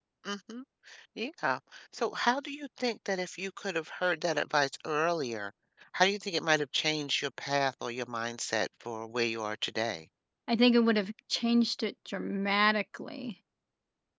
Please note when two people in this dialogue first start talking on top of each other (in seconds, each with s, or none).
none